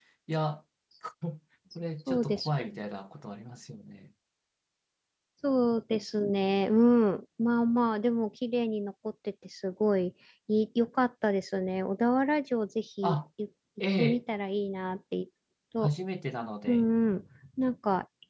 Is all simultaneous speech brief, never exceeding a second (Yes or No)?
Yes